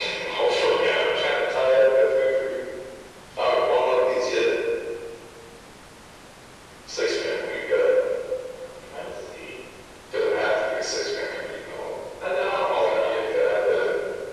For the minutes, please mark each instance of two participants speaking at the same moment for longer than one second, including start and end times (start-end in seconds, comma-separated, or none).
12.4-13.8